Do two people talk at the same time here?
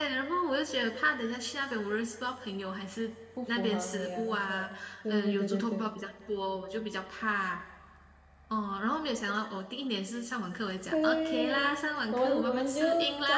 Yes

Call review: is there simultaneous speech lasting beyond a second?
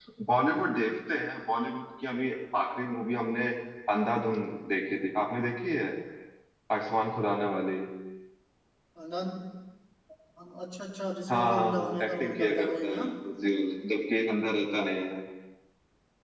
Yes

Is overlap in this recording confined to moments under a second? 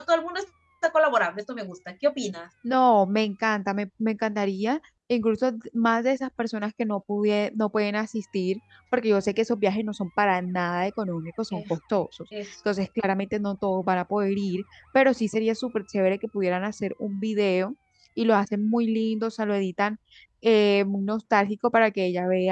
Yes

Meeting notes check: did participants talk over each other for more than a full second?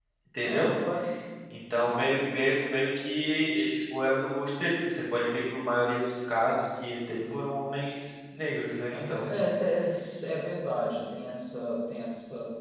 No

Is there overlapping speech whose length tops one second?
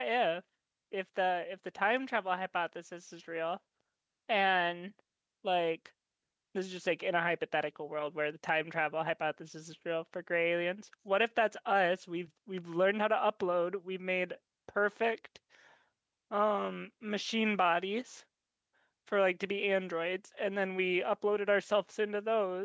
No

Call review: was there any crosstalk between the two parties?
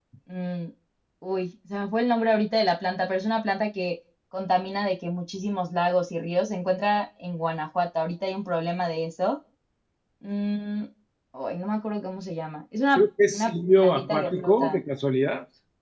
Yes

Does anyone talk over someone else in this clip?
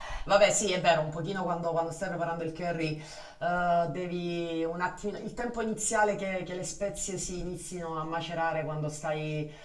No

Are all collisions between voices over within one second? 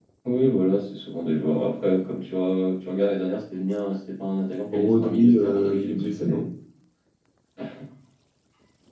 No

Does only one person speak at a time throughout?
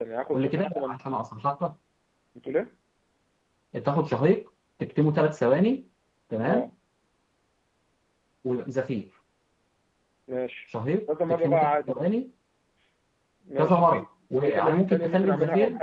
No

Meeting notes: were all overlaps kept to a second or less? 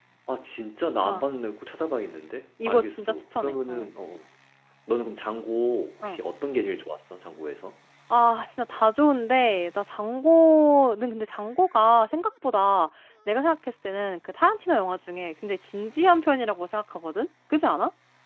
No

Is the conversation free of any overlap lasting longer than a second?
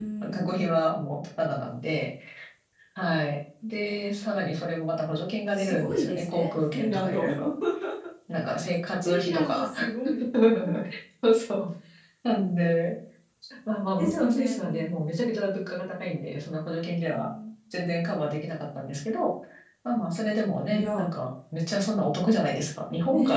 No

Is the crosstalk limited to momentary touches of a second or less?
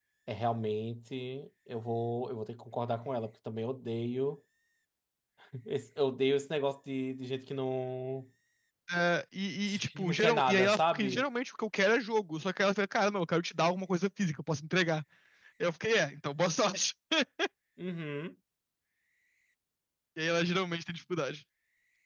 No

